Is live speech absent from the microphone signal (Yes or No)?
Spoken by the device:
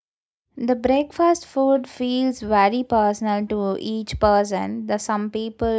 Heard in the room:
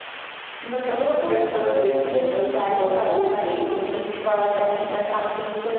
No